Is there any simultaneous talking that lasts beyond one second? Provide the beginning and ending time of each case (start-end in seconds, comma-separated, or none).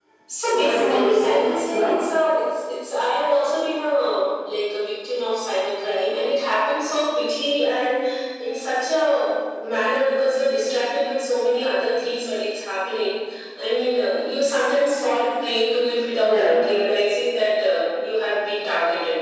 0.5-1.9